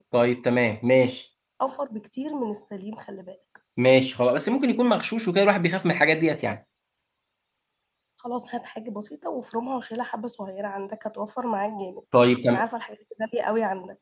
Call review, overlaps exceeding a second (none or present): none